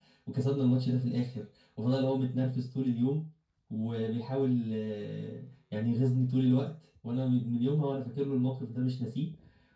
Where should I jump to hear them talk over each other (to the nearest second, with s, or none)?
none